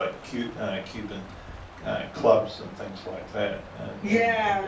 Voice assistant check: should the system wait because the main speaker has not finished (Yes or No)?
No